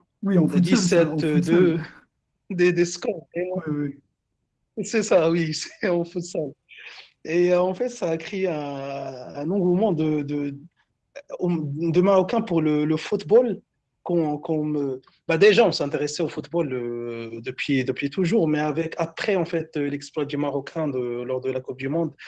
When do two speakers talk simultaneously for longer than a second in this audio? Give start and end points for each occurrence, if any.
0.5-1.7

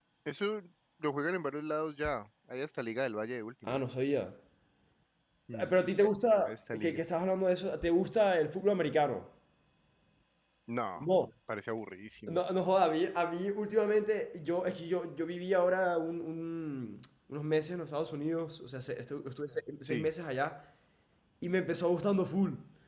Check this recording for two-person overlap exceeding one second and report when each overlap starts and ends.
none

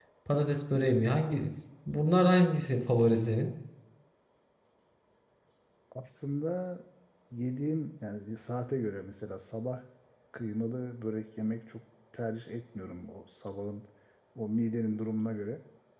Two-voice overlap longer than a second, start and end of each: none

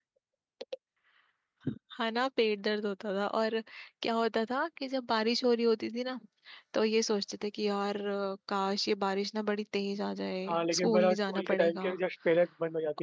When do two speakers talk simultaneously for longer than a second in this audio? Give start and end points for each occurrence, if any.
10.5-11.9

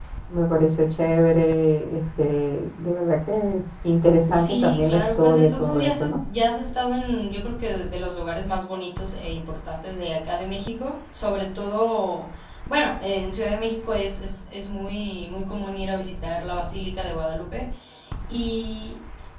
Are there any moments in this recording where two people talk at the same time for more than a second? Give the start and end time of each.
4.3-6.2

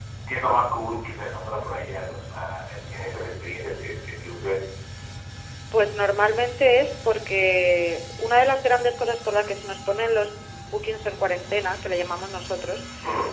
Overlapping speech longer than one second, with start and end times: none

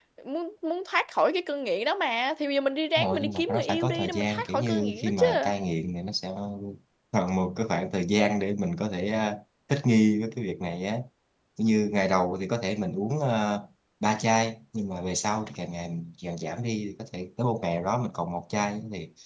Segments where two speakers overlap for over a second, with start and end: 3.0-5.2

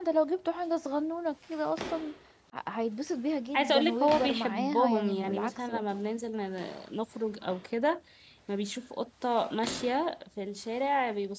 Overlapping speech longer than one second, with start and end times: 3.5-5.8

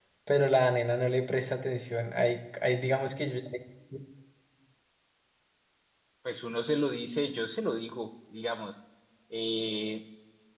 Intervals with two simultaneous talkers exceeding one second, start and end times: none

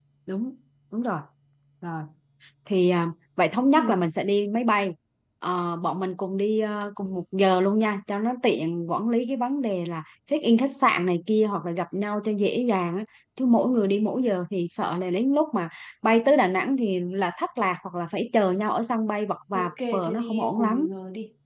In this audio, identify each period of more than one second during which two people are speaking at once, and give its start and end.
19.5-20.9

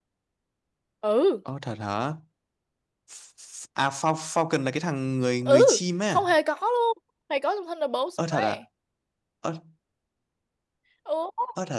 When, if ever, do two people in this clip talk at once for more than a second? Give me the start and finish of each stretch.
none

